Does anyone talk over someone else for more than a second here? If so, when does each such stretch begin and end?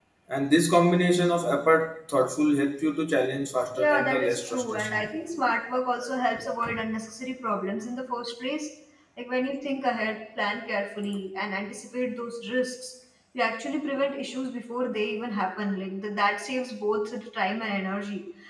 3.7-5.1

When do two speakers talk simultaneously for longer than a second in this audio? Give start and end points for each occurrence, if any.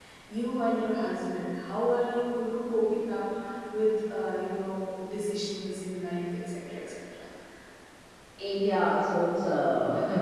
none

